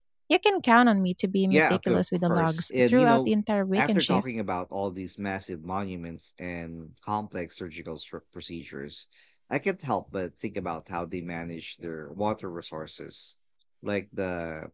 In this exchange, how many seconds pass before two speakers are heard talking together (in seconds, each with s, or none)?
1.5 s